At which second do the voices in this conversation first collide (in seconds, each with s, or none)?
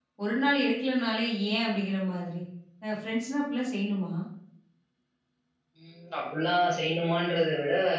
none